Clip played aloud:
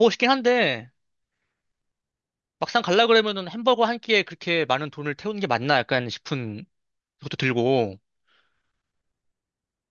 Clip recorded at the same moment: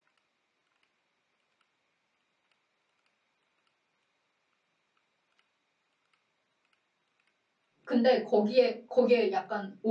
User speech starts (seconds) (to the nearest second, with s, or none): 8 s